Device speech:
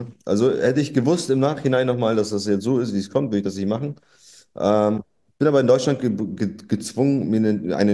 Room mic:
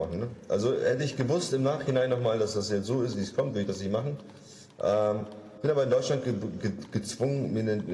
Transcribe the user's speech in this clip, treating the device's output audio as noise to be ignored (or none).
none